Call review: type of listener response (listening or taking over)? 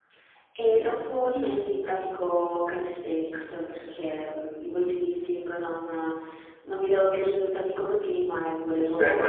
taking over